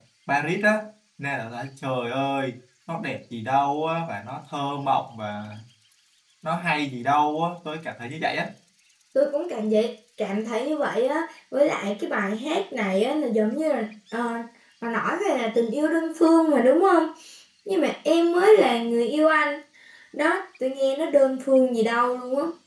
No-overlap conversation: Yes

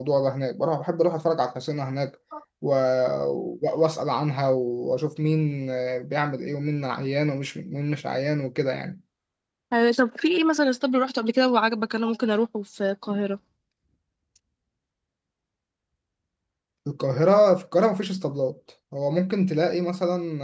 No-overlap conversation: Yes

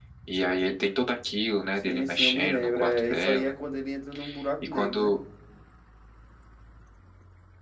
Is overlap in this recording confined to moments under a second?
No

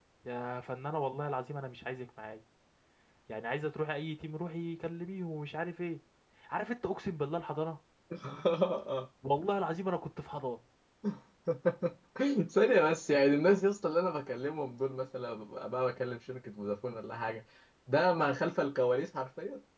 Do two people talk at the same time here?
No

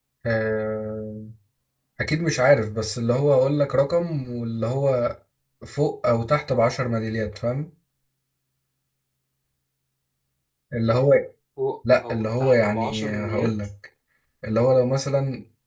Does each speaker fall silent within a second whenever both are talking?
No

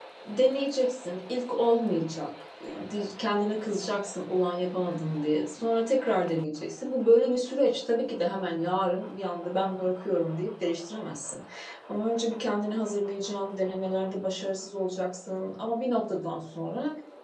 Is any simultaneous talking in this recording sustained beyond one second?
No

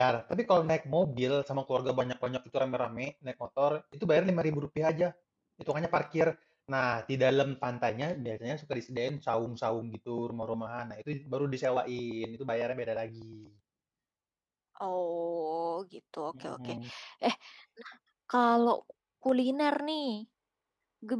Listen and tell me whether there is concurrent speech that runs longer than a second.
No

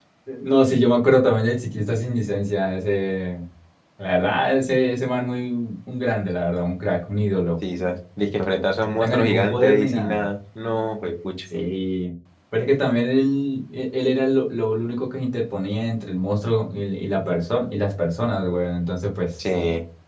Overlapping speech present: Yes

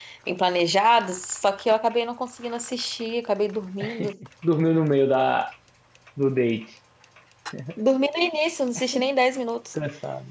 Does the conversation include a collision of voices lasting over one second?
No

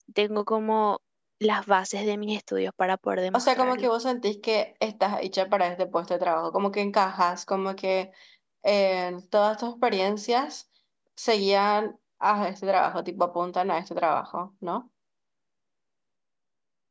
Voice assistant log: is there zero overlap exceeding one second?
Yes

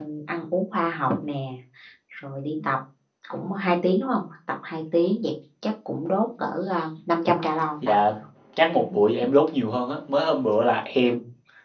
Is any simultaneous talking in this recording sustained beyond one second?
No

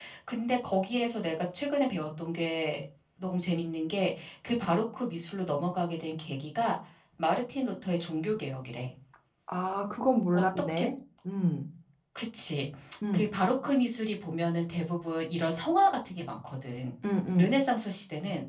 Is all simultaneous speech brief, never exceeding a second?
Yes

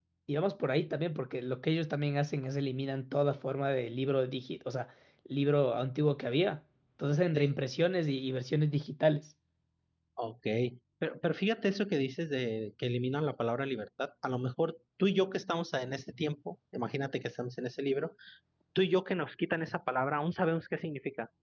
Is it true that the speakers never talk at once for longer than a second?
Yes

